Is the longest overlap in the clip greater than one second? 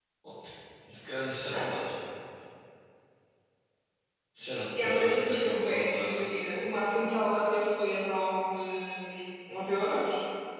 Yes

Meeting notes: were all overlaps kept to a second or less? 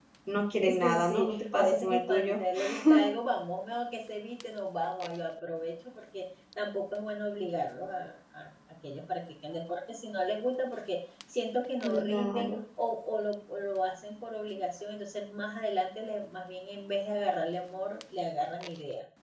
No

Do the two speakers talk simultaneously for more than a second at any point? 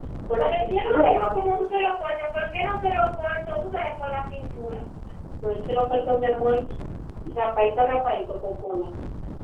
Yes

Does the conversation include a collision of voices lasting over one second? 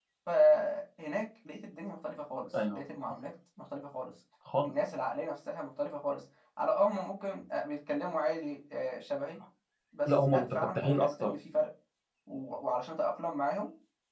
Yes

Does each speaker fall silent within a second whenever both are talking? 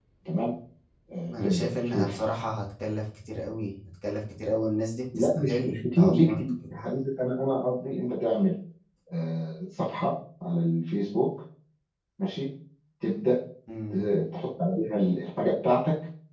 No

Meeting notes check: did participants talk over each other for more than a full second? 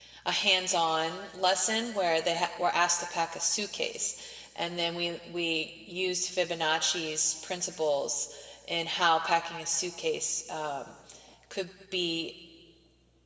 No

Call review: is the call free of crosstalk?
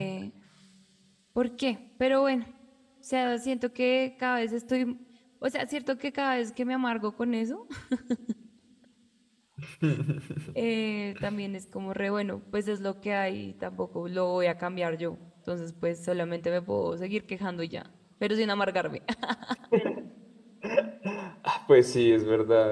Yes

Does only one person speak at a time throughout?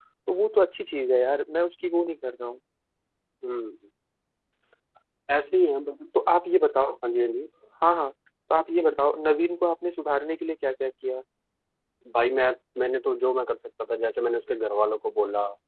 Yes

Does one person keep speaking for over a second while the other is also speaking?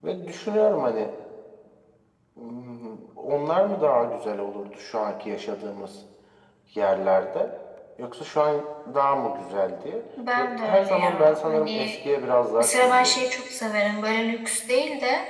Yes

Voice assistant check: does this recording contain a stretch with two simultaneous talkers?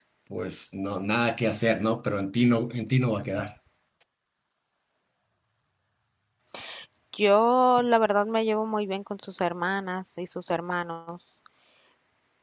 No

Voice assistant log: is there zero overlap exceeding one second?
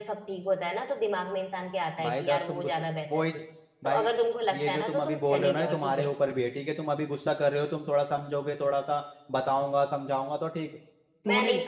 No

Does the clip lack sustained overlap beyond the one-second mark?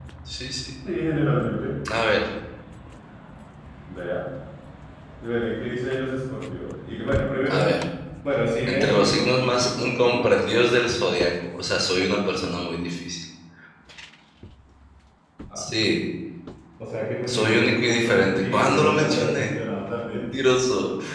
No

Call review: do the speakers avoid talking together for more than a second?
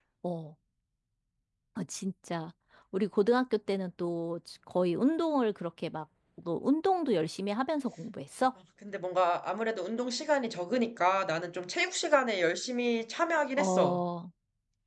Yes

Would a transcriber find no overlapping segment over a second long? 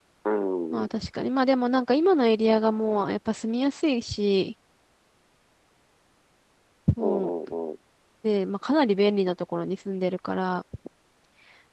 Yes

